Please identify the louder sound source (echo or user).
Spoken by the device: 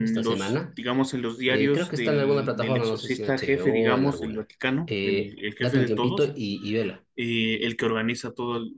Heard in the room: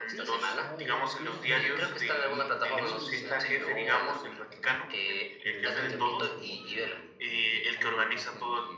echo